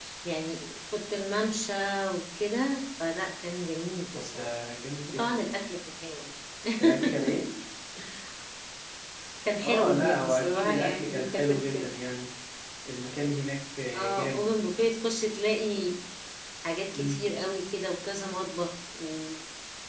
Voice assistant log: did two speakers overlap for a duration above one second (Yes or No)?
Yes